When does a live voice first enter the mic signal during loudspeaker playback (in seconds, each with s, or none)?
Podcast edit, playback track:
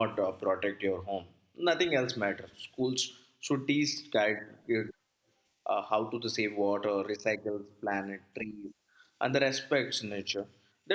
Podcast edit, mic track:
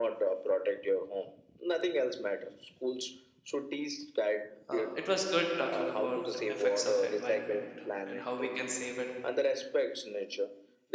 4.7 s